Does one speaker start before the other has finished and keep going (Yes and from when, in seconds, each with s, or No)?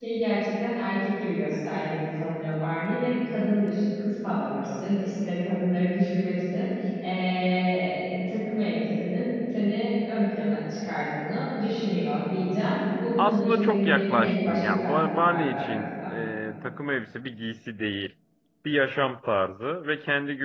Yes, from 13.2 s